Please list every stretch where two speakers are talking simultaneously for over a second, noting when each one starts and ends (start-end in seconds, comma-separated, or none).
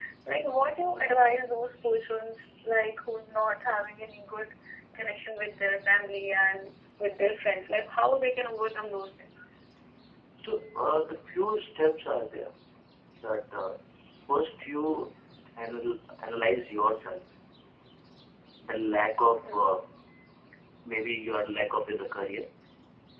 none